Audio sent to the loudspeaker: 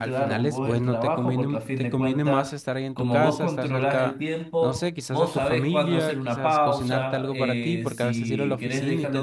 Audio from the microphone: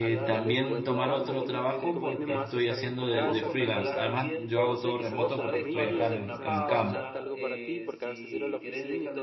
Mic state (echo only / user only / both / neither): both